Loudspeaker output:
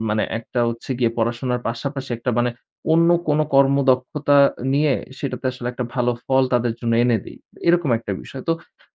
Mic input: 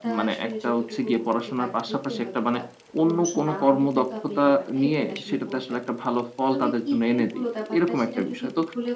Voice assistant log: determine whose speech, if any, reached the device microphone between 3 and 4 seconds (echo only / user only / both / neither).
both